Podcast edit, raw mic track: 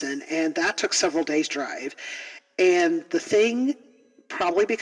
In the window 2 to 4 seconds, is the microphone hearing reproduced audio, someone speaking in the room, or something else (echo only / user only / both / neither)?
echo only